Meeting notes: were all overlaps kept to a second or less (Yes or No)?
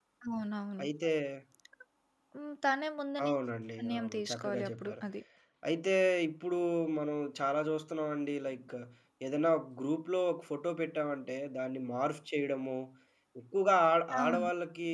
No